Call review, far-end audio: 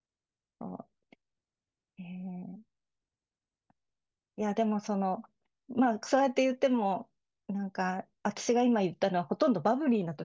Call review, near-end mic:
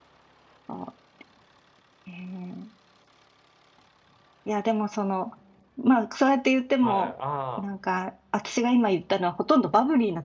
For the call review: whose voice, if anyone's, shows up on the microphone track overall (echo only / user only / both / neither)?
both